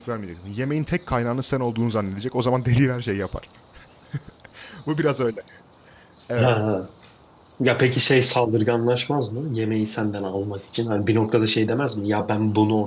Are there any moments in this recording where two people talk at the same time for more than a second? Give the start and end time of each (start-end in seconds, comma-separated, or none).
none